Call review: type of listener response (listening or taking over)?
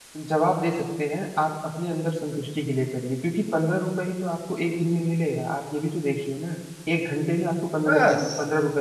listening